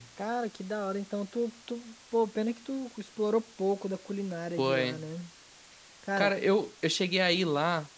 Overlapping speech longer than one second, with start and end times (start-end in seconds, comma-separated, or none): none